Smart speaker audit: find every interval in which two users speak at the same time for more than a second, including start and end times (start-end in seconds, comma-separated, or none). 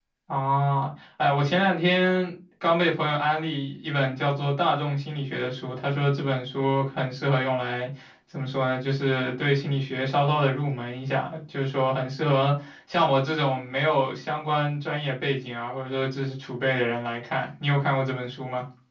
none